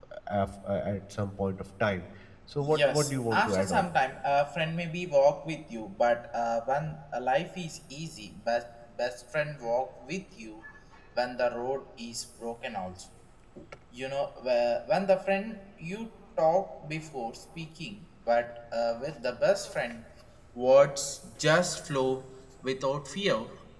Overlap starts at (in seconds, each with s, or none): 2.6 s